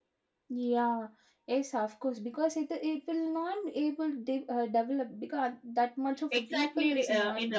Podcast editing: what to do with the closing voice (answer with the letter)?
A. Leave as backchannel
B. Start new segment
B